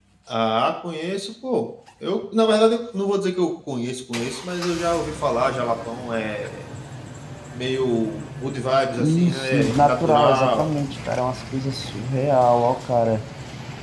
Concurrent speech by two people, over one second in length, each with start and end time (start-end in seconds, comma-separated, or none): 9.0-10.7